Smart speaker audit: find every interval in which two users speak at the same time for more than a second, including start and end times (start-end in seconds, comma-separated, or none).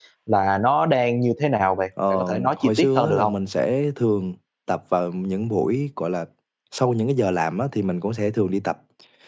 2.1-3.3